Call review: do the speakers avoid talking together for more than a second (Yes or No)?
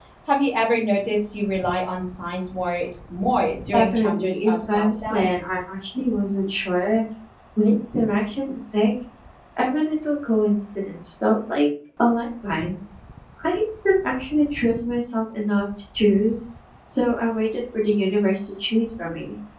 No